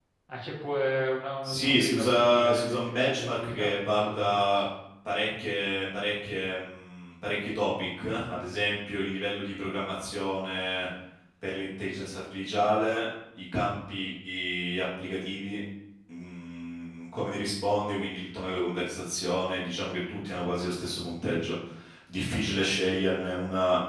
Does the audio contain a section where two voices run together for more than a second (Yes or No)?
Yes